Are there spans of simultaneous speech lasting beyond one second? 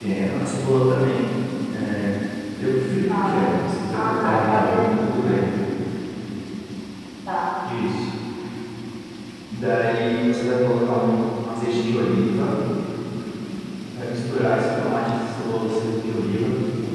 Yes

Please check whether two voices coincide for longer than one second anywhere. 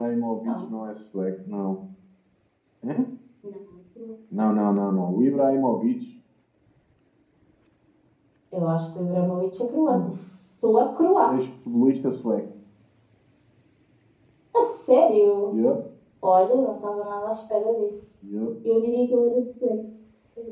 No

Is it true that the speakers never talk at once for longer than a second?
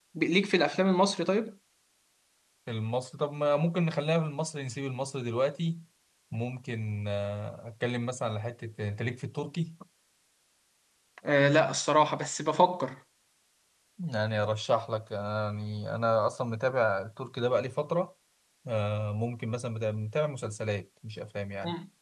Yes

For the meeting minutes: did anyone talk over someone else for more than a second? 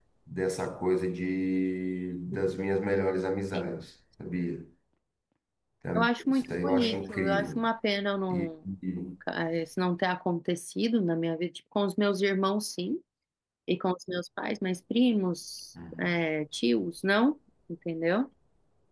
Yes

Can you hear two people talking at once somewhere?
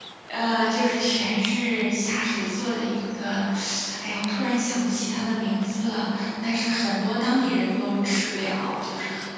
No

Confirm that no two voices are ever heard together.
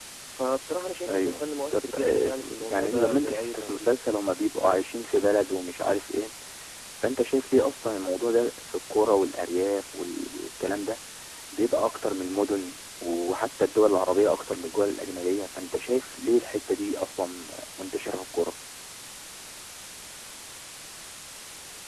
No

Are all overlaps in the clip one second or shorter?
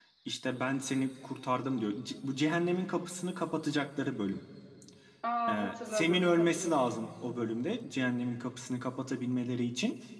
No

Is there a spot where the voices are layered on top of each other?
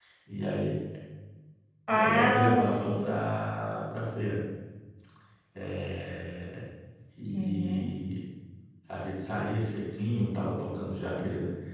Yes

